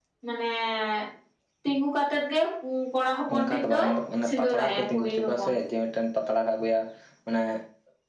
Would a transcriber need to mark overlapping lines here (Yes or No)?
Yes